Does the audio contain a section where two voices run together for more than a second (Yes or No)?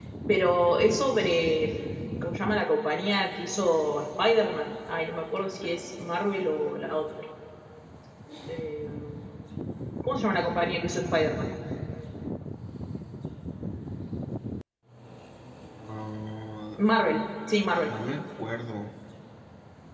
No